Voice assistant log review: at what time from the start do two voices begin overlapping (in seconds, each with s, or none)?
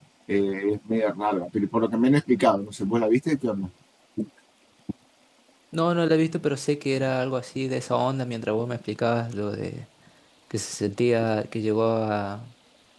none